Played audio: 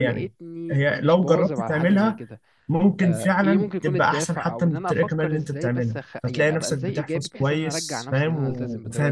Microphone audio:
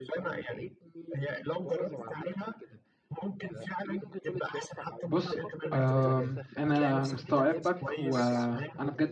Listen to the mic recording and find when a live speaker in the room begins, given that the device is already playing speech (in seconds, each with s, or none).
5.1 s